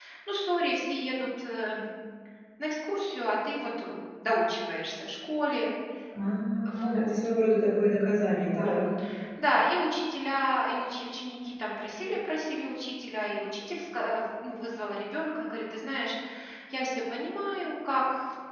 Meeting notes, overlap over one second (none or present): none